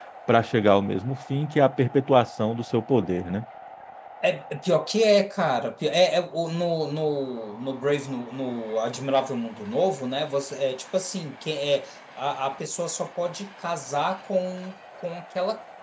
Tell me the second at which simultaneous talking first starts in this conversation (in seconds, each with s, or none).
none